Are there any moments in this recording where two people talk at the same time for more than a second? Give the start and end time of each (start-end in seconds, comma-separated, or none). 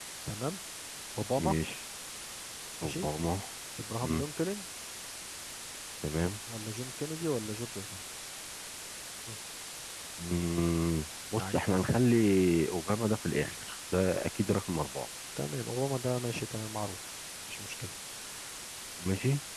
none